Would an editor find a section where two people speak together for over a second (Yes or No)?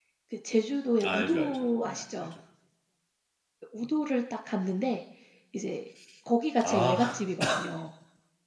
Yes